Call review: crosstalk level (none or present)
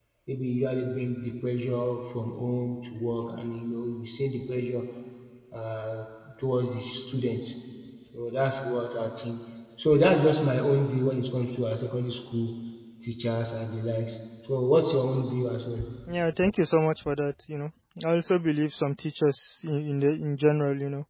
none